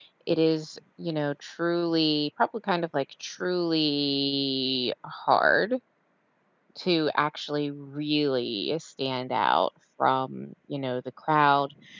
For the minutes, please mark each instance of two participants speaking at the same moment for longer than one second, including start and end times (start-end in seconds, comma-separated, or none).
none